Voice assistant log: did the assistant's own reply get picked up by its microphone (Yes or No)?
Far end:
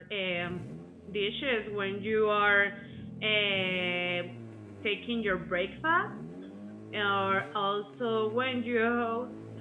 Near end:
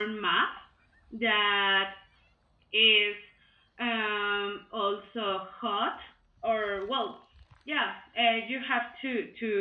No